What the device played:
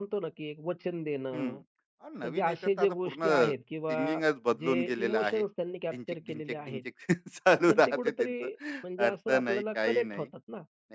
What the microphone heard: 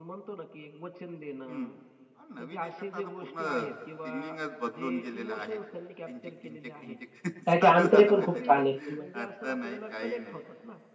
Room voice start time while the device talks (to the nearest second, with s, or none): 7 s